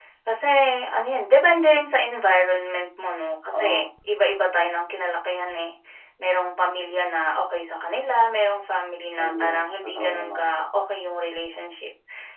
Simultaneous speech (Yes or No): Yes